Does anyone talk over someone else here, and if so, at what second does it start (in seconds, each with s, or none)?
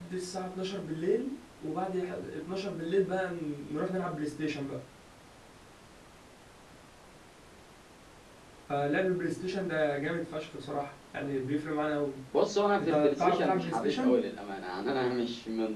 12.8 s